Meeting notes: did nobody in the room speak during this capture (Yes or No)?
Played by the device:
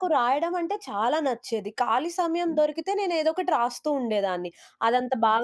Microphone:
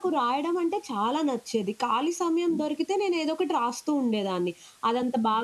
Yes